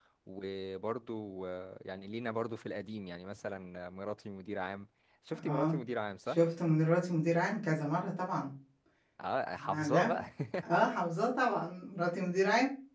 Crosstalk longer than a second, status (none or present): none